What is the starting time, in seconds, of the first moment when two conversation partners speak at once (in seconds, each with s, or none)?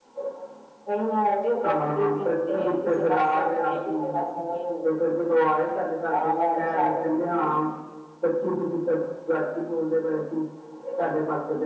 1.6 s